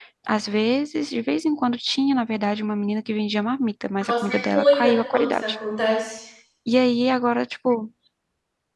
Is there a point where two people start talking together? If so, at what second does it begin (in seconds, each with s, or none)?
4.0 s